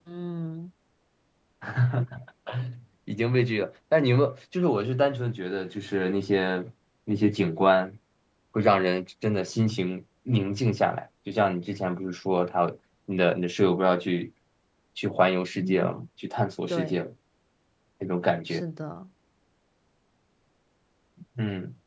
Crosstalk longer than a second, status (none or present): none